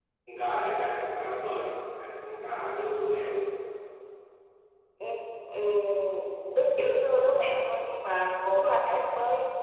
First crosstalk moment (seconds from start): none

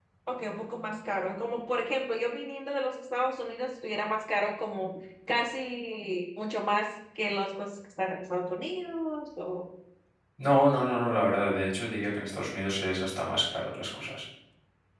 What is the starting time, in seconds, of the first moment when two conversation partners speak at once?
none

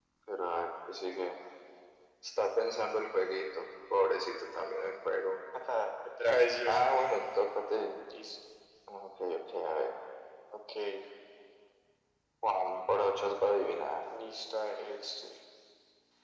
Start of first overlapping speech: none

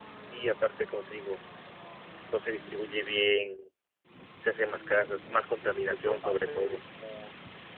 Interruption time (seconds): 6 s

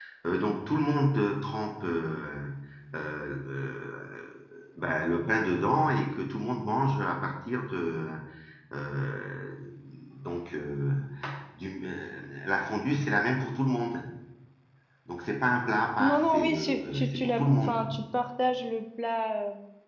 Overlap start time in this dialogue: 16 s

